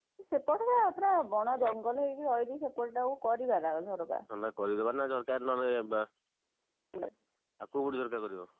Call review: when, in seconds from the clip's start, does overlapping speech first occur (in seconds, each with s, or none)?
none